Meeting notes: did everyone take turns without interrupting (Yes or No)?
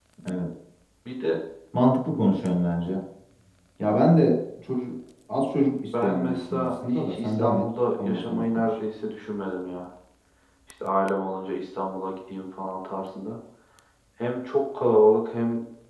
No